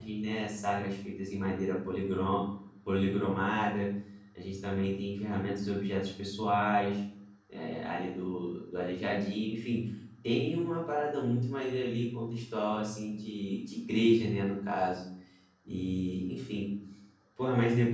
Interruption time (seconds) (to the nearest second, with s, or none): none